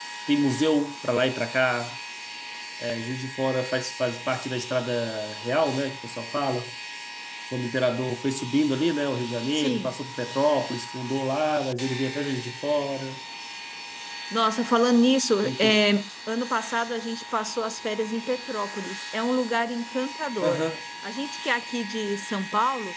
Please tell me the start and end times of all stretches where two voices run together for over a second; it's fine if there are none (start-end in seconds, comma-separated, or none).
none